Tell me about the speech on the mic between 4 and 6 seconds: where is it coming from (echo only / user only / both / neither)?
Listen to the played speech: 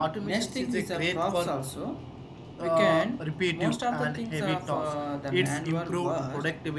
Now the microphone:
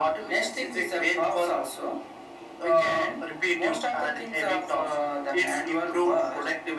echo only